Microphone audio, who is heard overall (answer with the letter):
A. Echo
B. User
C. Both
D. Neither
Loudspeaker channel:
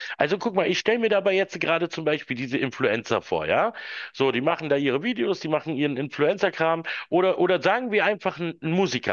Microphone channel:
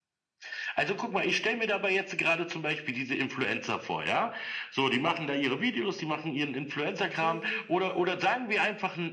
C